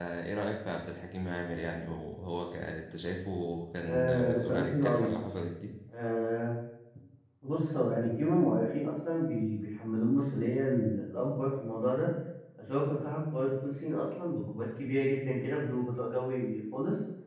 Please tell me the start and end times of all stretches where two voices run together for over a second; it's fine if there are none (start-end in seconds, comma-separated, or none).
3.8-5.1